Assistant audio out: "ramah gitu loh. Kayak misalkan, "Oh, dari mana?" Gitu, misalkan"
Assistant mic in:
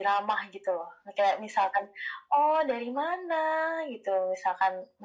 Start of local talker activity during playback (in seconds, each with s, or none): none